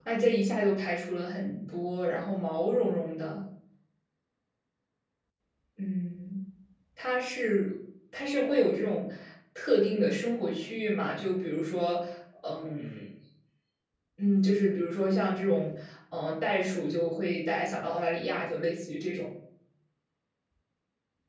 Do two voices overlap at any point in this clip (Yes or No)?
No